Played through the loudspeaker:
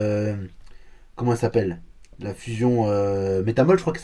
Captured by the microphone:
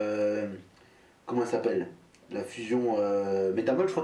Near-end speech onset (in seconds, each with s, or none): none